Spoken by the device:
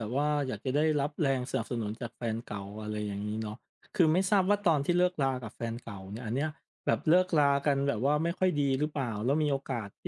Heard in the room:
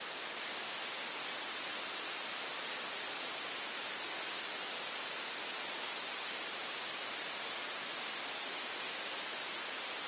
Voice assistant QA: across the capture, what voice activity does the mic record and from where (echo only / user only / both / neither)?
neither